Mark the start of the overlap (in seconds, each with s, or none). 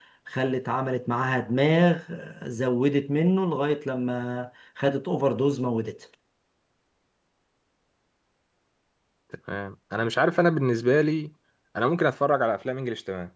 none